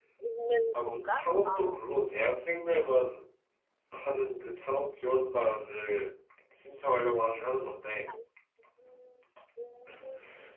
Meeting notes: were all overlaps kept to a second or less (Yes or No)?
Yes